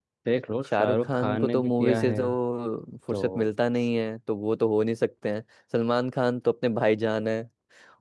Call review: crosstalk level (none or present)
present